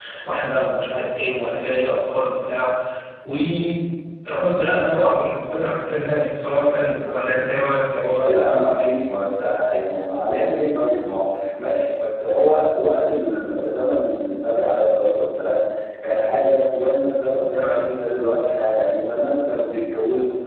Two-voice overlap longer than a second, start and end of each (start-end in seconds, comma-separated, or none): none